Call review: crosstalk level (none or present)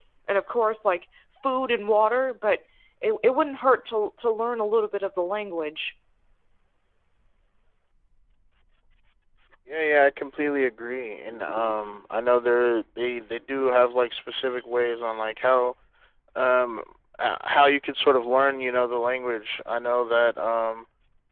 none